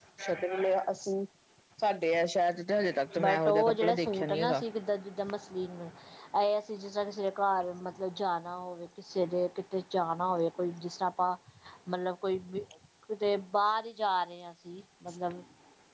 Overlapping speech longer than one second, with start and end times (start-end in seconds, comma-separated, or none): 3.2-4.6